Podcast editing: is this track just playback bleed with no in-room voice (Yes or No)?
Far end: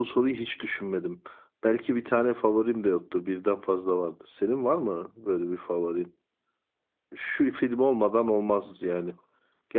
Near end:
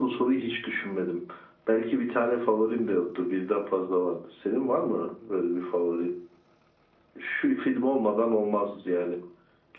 Yes